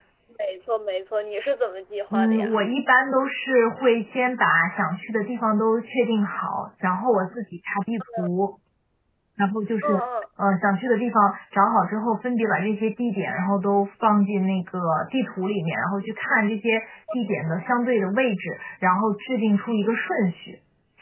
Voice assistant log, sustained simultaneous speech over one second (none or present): none